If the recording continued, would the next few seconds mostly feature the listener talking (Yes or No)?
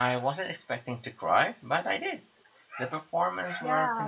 Yes